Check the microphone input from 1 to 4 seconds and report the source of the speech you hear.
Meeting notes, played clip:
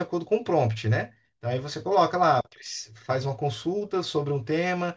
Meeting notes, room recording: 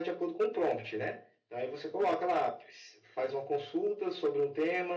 echo only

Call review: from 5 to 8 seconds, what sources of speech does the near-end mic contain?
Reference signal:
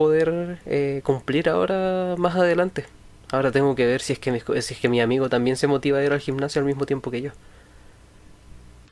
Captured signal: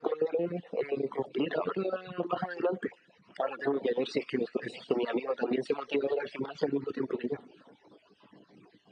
echo only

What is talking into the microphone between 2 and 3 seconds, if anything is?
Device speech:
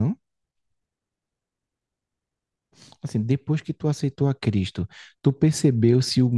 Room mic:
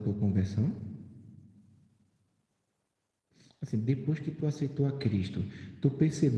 neither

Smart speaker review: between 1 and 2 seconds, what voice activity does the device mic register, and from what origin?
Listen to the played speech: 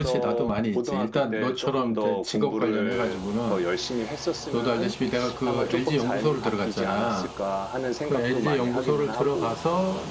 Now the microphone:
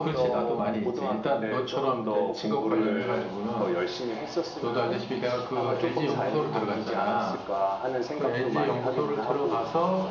echo only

